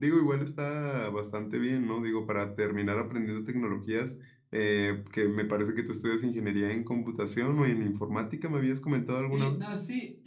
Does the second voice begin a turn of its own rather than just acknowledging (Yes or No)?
Yes